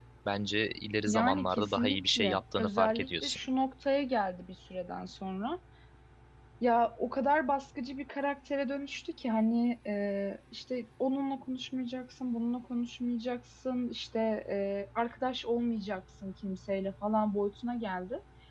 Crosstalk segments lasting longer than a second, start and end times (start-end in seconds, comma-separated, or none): 1.1-3.4